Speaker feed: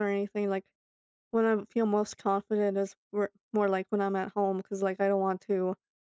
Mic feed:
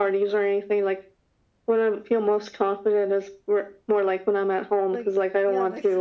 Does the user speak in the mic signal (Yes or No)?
Yes